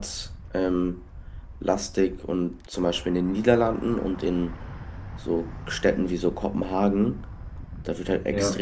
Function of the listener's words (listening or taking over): listening